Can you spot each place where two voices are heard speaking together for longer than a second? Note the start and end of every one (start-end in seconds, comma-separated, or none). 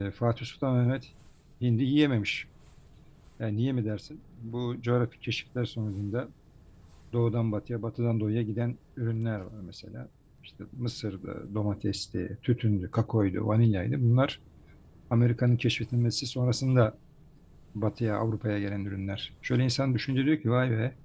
none